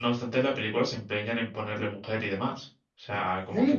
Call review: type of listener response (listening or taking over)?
taking over